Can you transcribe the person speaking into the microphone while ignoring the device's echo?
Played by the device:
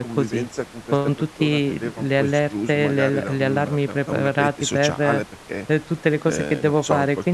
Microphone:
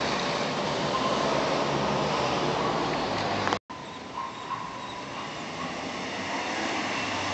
none

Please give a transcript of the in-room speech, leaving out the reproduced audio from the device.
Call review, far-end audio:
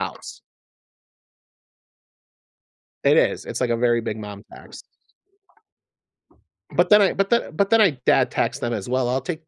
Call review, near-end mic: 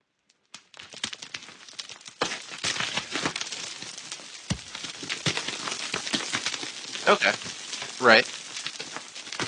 Okay. Right.

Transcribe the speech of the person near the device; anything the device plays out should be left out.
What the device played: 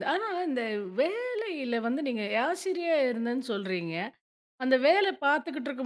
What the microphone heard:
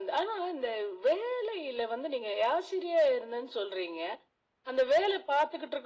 none

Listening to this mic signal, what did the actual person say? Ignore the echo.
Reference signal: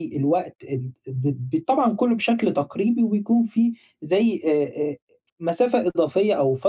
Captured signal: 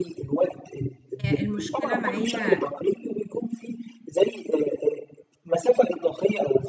هي المشكلة معايا

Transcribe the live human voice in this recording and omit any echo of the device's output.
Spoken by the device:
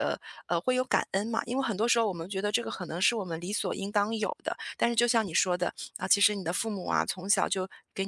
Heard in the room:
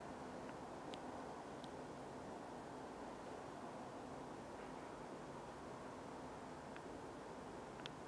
none

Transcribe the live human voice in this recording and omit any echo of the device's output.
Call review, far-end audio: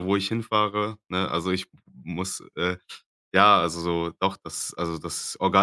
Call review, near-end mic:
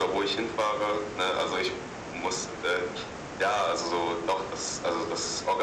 none

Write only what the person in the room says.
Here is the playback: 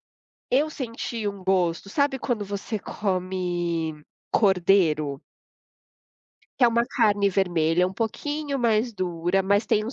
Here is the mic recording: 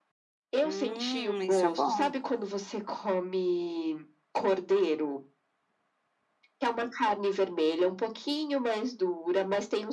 Hum, isso é bom.

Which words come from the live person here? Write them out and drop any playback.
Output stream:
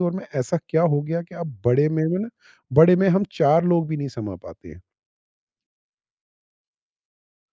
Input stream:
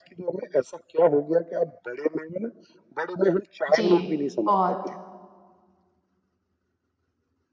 जी, बहुत

